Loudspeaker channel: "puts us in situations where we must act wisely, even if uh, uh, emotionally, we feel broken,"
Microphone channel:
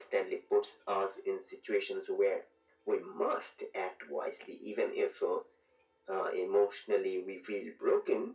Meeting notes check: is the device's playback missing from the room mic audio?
No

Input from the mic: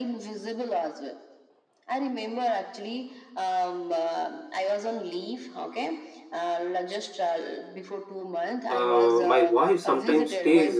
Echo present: Yes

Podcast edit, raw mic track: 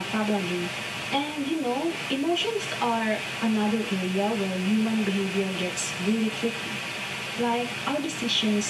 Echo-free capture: No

